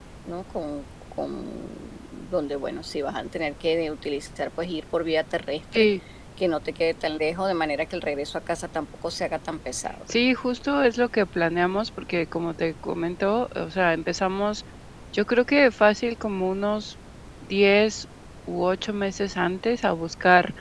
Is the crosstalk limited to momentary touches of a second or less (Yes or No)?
Yes